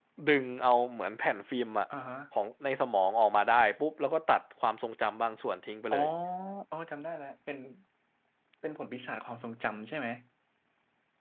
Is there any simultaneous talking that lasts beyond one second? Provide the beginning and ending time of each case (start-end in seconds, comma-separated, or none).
none